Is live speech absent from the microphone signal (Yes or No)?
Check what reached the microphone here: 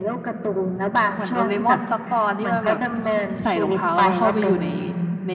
No